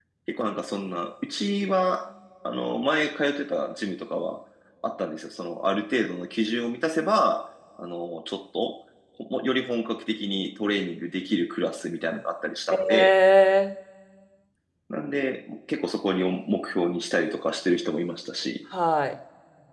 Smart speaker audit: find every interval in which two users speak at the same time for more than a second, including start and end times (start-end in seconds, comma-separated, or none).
none